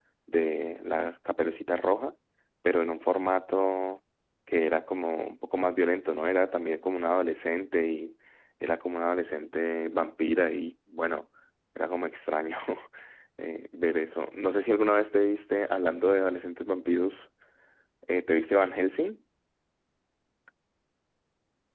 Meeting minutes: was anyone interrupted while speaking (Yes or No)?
No